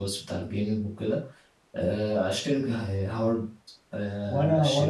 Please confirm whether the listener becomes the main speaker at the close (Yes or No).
Yes